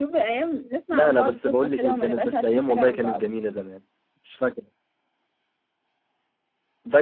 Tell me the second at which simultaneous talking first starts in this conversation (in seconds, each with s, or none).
0.9 s